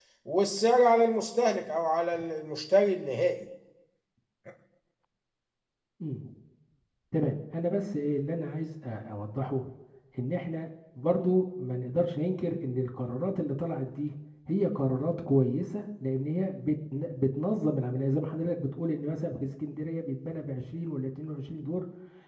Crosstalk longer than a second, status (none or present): none